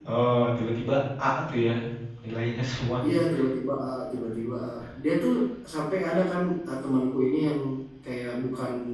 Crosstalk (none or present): none